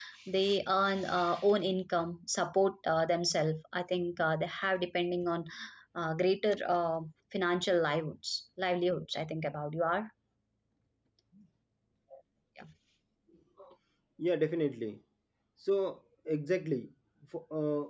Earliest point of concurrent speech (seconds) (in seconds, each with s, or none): none